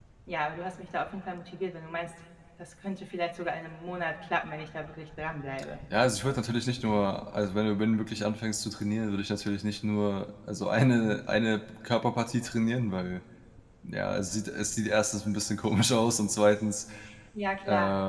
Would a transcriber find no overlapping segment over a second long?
Yes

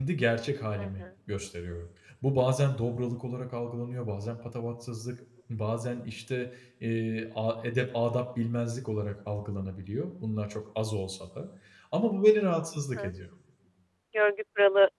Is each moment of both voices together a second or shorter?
Yes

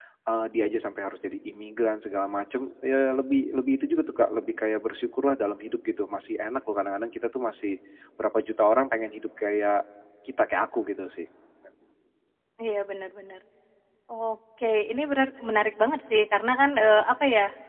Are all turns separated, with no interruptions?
Yes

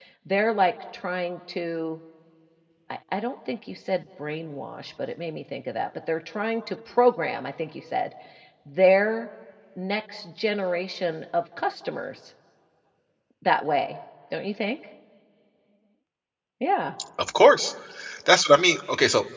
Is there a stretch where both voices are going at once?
No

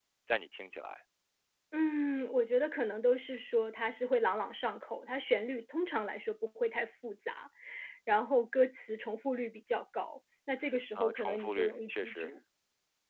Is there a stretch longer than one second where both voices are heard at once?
Yes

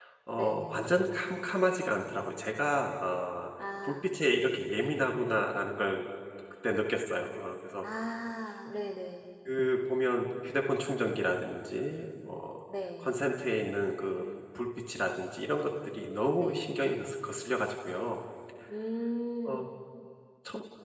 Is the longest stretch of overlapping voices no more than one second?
Yes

